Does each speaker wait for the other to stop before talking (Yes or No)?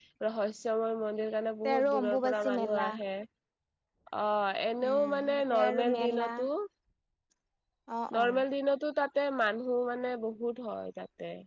No